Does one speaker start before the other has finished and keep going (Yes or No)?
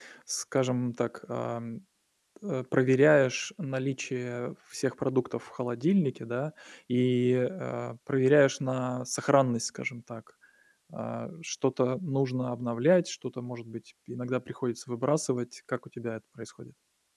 No